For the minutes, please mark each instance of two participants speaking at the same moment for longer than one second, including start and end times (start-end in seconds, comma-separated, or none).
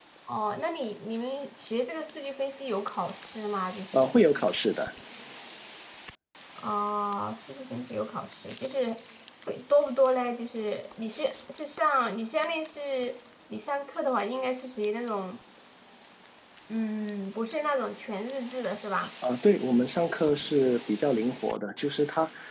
none